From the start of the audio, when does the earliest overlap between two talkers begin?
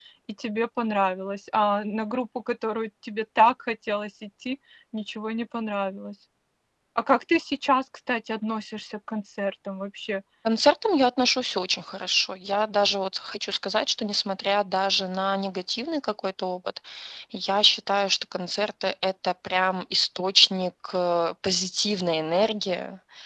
none

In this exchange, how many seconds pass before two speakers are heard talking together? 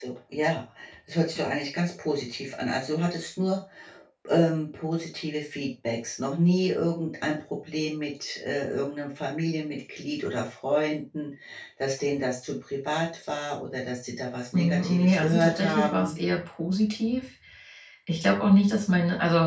15 s

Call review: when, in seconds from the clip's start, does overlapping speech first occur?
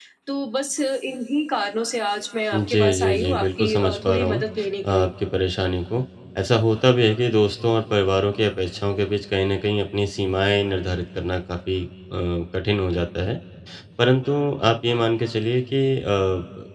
3 s

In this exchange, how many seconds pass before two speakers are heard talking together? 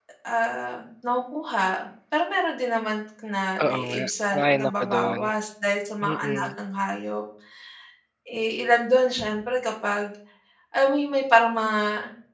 4 s

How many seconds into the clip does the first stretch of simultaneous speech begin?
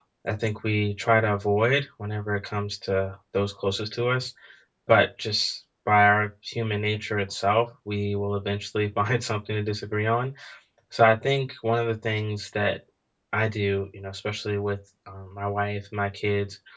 none

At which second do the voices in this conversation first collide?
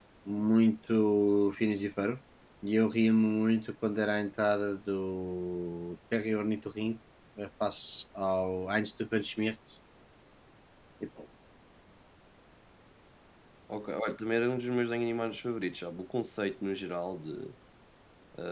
none

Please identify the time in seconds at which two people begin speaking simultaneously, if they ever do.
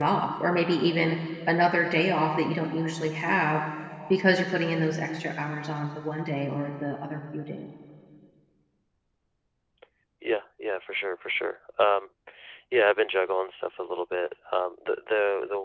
none

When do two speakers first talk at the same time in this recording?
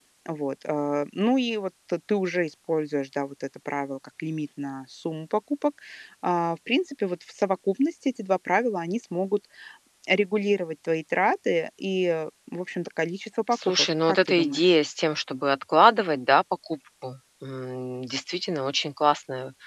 14 s

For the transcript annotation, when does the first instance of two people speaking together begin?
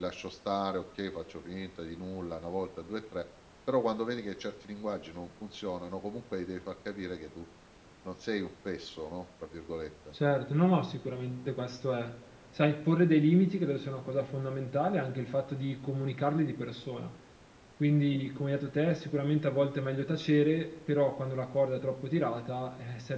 none

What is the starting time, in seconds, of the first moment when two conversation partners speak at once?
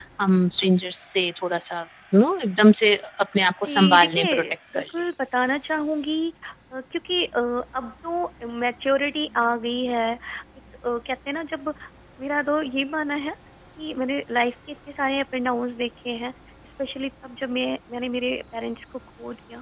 4 s

